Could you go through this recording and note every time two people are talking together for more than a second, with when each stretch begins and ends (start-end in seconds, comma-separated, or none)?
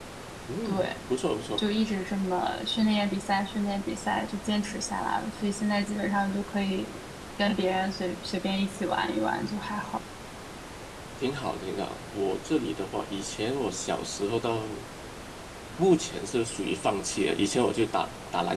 none